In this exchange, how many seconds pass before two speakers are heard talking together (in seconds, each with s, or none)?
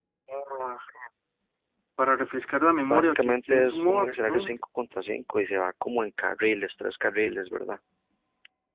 2.8 s